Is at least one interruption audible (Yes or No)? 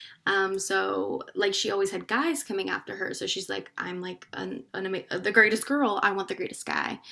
No